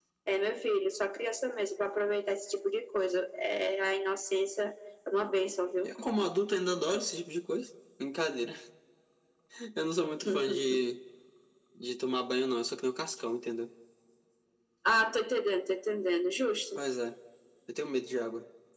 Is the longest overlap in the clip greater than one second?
No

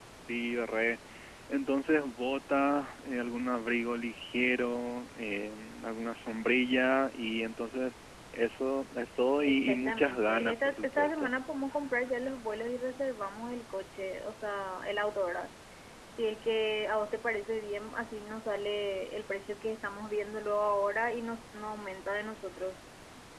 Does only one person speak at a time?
No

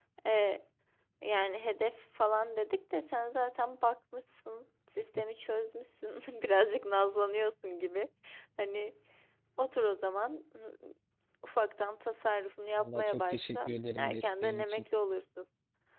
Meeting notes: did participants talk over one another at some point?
Yes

